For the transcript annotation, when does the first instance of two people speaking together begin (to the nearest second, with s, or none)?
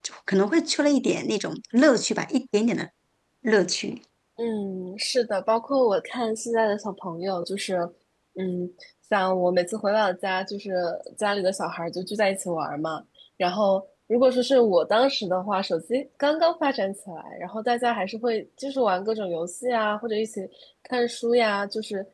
none